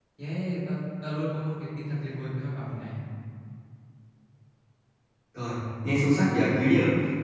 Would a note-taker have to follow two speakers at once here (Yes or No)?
No